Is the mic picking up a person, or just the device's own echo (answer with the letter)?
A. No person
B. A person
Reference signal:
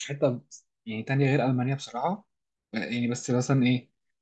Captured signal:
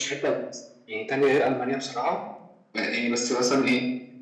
A